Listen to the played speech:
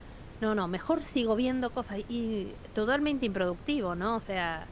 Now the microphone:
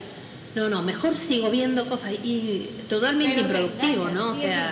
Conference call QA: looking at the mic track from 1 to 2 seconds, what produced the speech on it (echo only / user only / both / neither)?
echo only